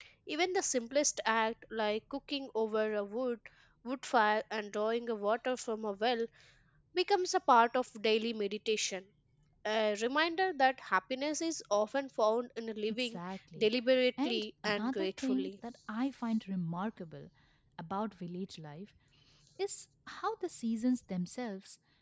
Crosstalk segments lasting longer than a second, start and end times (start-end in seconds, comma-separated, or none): 14.2-15.5